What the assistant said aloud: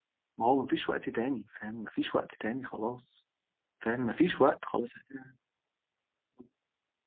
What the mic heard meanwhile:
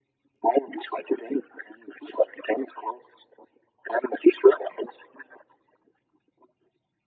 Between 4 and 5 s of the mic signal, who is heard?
echo only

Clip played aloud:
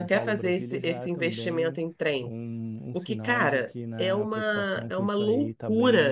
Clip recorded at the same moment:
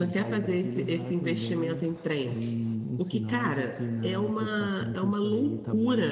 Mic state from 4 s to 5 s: echo only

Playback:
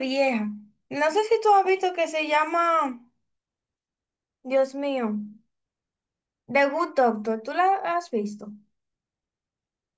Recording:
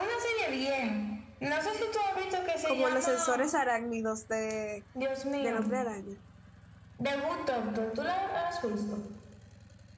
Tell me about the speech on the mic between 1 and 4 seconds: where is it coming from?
both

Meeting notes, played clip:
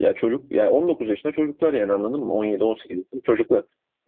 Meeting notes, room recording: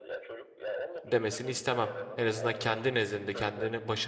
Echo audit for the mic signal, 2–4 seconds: both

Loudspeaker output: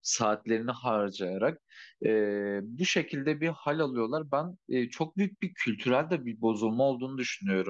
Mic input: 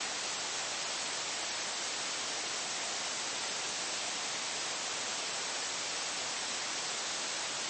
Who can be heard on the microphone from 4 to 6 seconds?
neither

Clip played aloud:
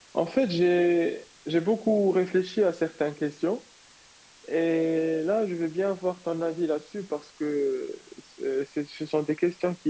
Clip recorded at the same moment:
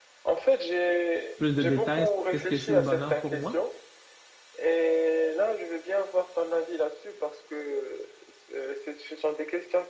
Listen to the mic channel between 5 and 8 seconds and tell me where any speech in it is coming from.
echo only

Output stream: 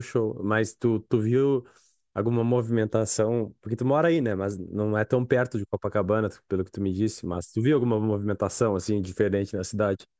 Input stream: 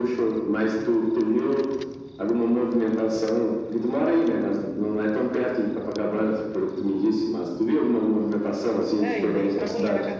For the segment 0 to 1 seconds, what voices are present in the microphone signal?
echo only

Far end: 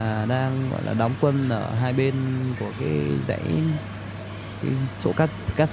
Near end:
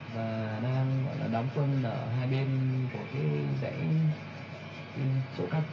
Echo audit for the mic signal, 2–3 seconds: echo only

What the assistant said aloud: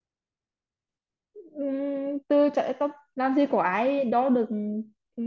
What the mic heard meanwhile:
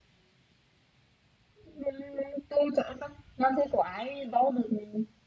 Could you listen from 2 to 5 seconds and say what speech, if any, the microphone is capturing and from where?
echo only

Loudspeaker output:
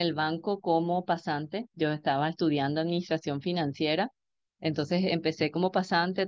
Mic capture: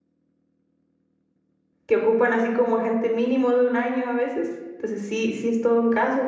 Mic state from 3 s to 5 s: user only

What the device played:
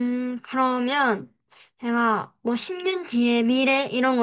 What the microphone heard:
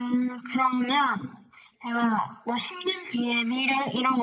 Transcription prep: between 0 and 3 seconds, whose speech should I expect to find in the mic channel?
echo only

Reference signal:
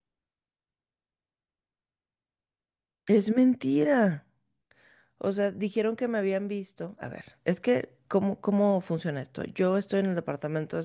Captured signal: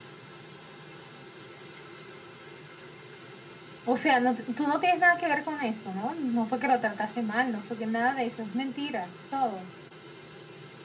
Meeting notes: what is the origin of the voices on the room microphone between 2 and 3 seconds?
neither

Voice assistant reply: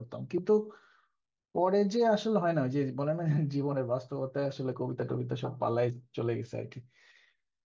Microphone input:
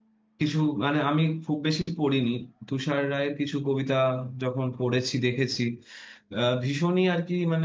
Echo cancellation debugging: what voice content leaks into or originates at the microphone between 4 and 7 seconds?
user only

